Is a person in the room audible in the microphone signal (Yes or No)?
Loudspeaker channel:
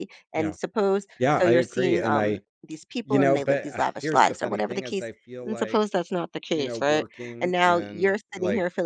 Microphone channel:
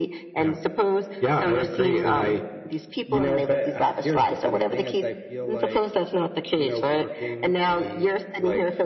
No